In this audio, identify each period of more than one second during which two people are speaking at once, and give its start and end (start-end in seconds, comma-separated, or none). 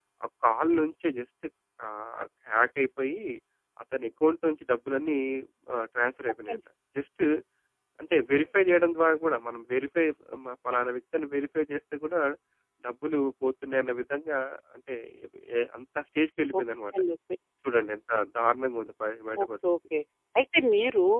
none